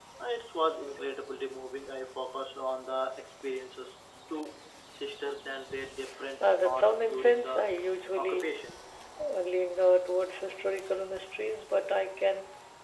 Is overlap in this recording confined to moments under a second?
No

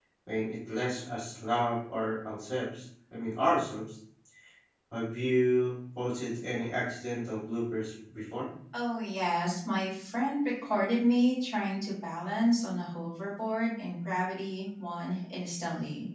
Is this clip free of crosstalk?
Yes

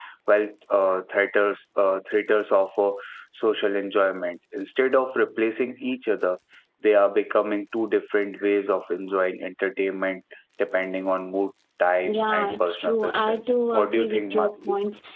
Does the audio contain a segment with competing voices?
Yes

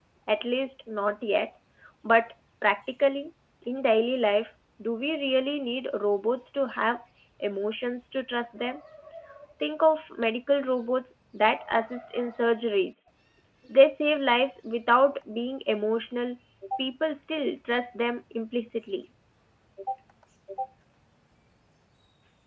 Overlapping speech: No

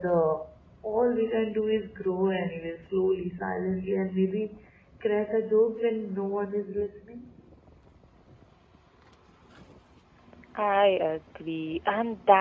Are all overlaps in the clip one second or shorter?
Yes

